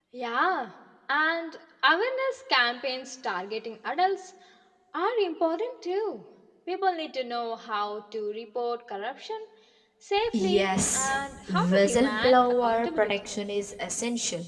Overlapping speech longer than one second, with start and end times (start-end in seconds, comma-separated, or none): 10.3-13.1